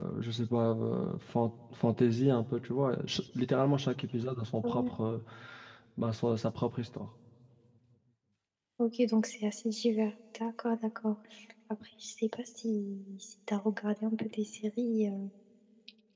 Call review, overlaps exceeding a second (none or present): none